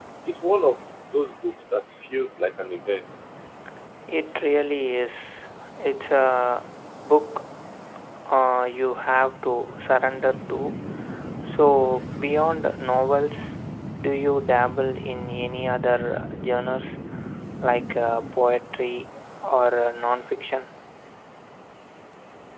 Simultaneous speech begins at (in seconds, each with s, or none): none